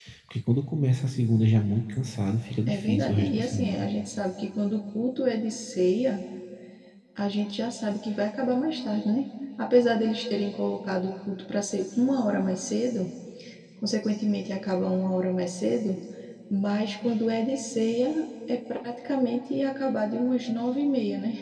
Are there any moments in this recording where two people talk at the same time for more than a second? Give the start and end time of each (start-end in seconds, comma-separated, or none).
2.7-3.9